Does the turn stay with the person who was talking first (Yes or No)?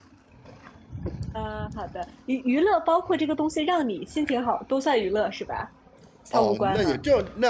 No